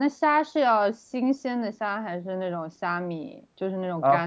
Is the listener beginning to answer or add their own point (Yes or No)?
Yes